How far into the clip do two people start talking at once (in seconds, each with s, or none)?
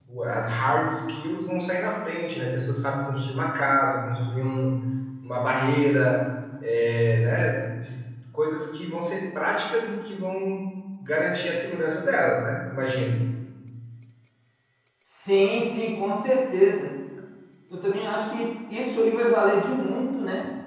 none